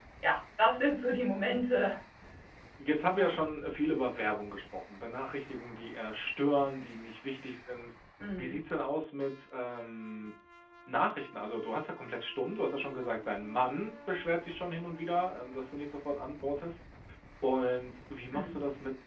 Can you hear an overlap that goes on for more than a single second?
No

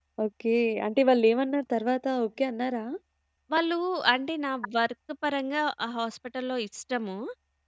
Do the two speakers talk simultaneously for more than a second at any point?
No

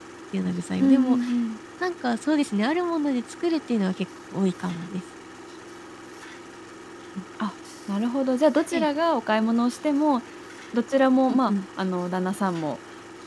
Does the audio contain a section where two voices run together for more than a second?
No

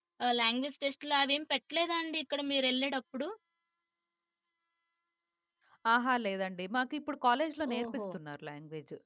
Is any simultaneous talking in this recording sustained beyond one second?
No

